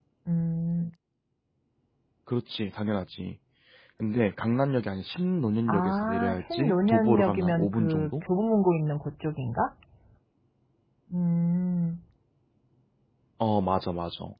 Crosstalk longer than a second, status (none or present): present